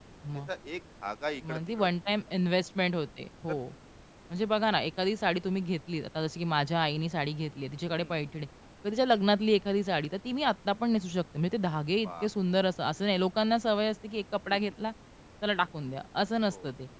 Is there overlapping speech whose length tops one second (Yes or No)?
No